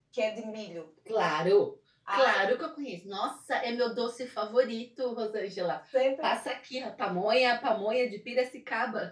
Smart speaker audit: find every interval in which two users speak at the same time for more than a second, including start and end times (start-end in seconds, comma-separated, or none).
none